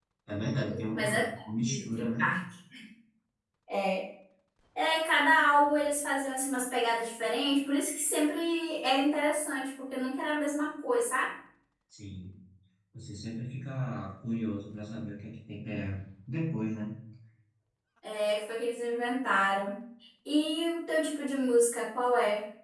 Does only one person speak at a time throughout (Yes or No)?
No